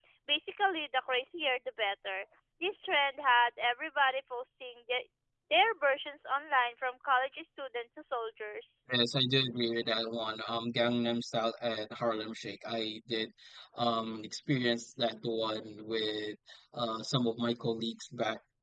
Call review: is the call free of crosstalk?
Yes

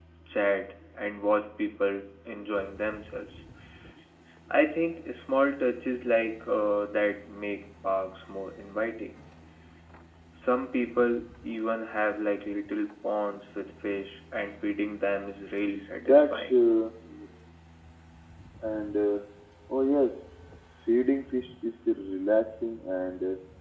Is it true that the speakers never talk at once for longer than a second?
Yes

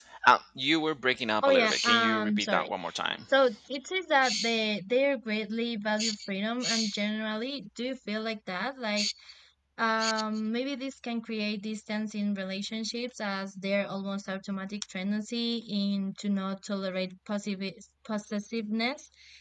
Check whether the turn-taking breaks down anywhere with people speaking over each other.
Yes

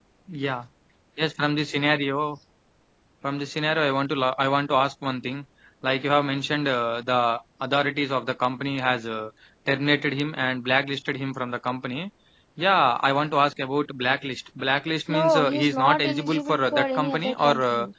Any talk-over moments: Yes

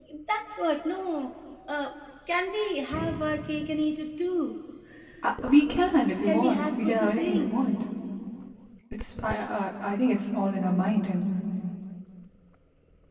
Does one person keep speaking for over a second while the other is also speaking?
Yes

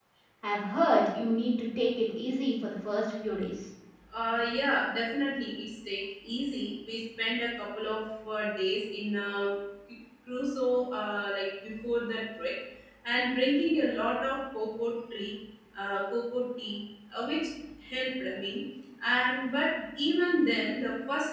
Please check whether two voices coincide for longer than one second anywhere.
No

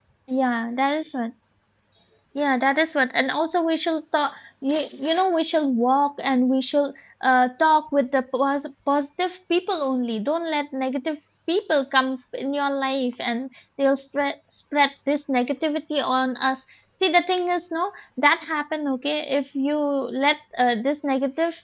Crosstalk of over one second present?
No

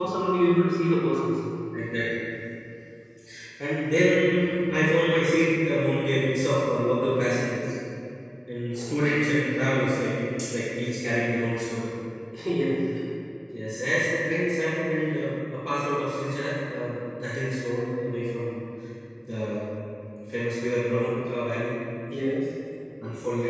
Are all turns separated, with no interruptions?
Yes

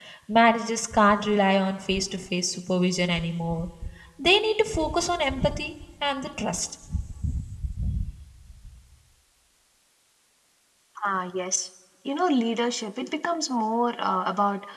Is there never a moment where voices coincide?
Yes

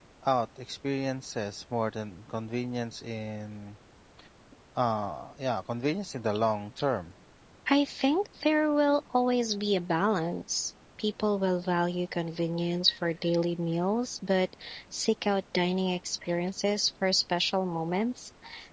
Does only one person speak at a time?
Yes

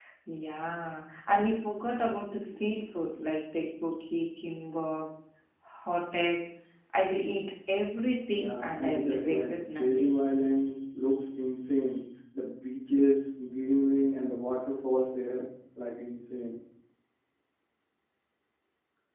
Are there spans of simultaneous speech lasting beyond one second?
Yes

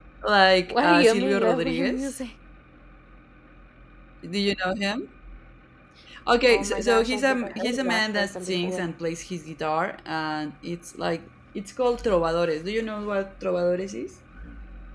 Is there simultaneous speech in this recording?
Yes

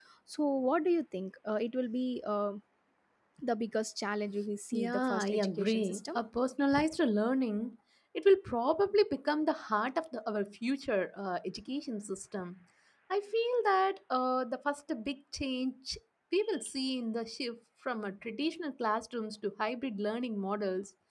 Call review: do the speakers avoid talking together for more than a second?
No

